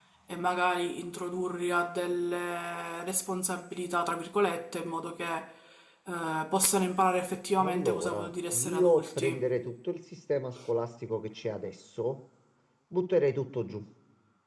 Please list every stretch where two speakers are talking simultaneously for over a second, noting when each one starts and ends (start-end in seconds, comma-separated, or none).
7.6-9.5